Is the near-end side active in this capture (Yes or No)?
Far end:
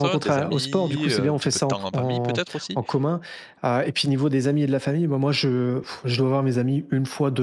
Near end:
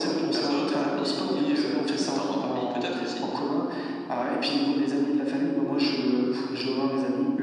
No